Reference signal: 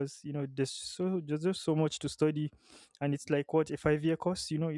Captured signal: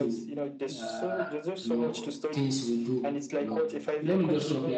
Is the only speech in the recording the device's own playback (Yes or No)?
No